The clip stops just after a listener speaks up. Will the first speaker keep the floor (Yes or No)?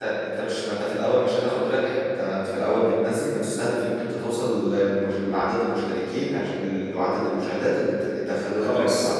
No